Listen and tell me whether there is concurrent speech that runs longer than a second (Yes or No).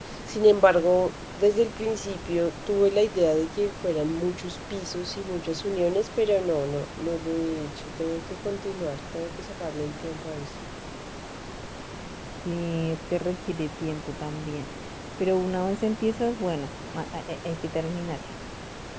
No